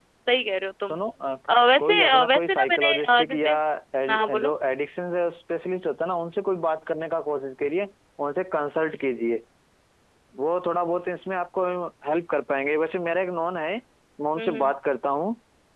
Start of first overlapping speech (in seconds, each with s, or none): 1.8 s